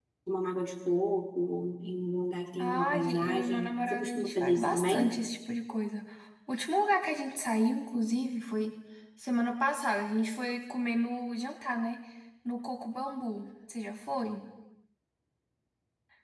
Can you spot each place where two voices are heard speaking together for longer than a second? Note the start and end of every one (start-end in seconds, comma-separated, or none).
2.6-5.1